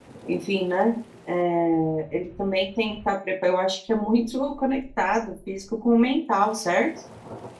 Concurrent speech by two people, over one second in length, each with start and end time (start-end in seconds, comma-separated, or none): none